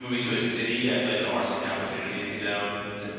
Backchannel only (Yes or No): Yes